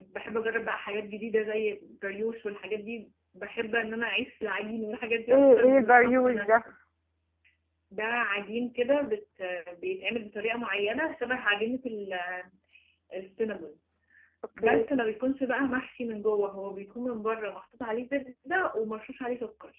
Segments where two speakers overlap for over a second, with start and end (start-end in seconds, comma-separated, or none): 5.3-6.5